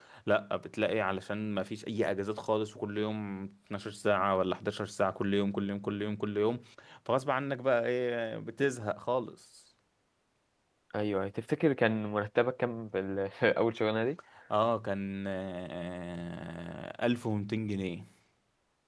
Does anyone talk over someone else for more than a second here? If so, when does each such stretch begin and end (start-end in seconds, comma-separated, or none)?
none